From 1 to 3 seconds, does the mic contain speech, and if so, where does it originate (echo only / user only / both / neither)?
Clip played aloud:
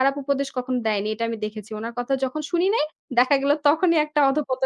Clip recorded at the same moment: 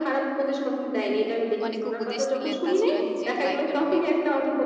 both